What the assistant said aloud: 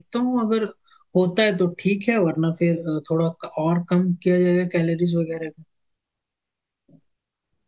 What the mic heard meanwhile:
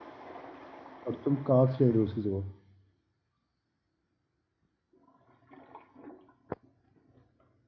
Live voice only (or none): और तुम कार्ब्स ले रहे हो उसकी जगह